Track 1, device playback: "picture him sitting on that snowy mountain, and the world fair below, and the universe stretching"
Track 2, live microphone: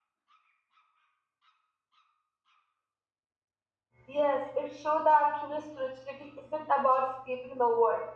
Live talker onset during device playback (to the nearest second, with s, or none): 4 s